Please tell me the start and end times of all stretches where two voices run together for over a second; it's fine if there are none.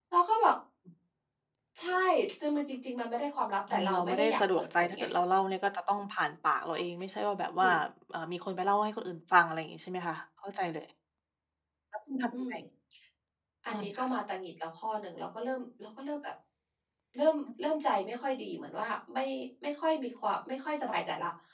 3.7-5.0

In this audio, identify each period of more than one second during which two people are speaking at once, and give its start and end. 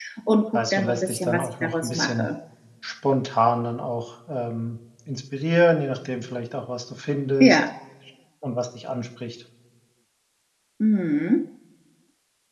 0.5-2.3

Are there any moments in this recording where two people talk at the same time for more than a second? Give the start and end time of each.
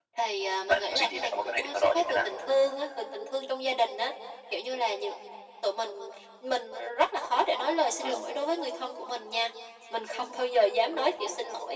0.7-2.2

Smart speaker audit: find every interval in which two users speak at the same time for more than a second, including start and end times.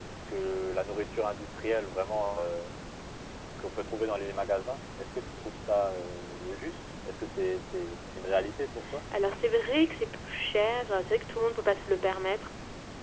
none

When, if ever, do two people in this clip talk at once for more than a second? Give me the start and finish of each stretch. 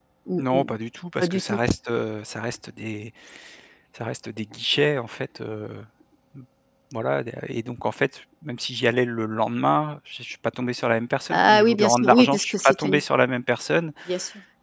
11.3-13.0

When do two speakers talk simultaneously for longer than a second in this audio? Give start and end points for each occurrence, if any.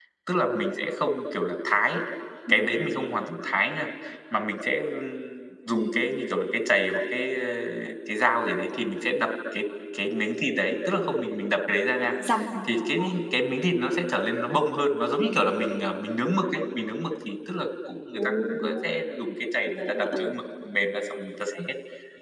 none

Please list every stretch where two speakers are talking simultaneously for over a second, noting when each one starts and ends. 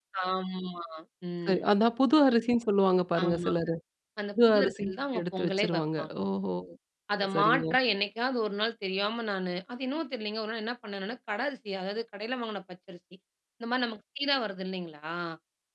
4.5-6.3

